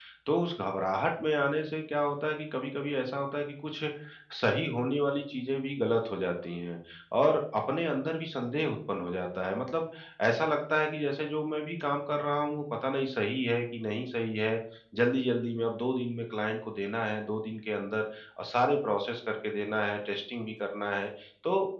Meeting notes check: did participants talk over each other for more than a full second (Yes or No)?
No